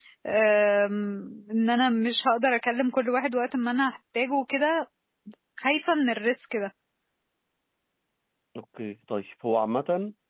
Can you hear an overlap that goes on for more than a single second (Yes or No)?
No